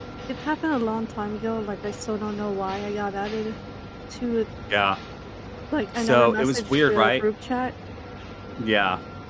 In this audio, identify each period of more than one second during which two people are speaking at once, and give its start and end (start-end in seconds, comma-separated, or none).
6.0-7.2